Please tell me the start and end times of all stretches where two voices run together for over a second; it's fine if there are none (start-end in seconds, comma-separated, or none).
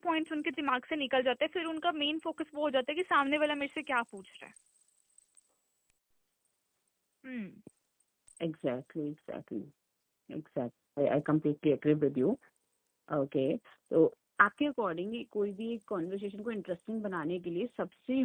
none